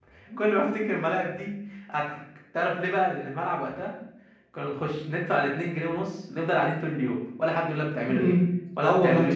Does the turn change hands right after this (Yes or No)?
Yes